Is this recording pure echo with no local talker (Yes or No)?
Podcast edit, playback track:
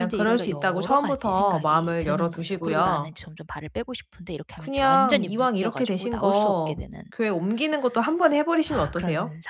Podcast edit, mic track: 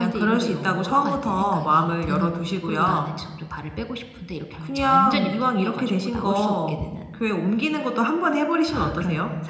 Yes